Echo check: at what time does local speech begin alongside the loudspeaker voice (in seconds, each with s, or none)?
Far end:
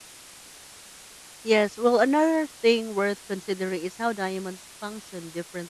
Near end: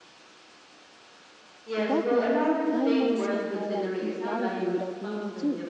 1.7 s